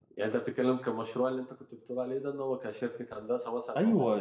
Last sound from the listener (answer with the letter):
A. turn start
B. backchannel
A